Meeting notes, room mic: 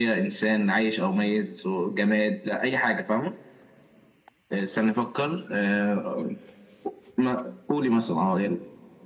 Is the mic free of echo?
No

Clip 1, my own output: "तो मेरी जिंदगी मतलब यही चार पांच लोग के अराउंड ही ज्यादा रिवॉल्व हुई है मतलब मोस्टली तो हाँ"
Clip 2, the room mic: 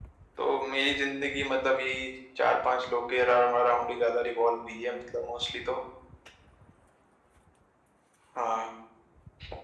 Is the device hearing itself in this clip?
Yes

